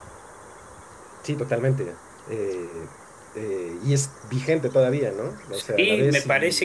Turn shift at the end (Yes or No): Yes